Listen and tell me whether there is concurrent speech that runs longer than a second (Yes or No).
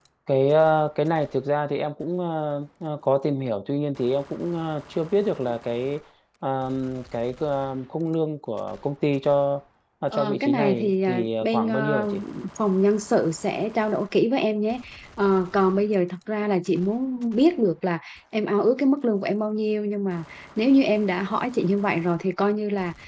Yes